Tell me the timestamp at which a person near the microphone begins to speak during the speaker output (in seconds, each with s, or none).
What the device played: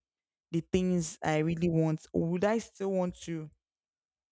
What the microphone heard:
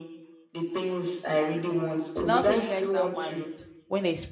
2.2 s